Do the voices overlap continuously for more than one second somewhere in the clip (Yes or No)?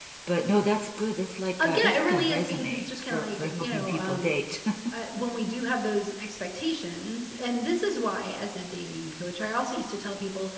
Yes